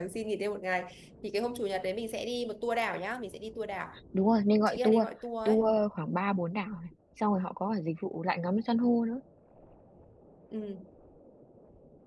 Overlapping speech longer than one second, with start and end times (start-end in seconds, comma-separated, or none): none